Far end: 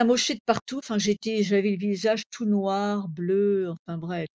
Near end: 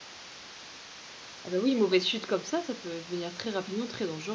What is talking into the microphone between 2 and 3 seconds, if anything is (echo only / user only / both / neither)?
user only